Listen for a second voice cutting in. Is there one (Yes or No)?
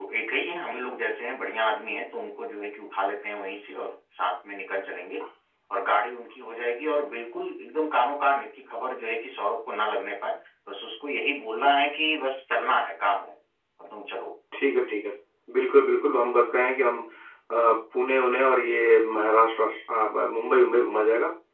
No